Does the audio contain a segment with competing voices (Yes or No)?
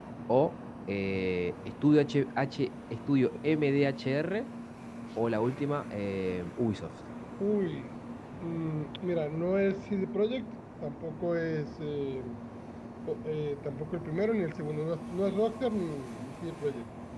No